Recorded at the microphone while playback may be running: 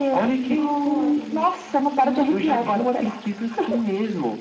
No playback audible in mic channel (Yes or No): No